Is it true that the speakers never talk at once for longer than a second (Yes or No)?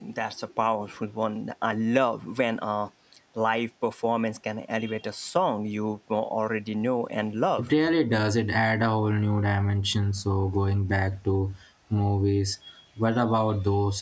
Yes